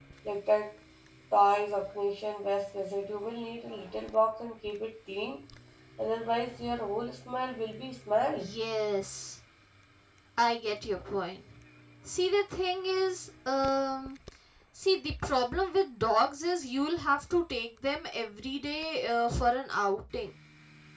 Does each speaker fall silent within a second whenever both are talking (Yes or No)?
Yes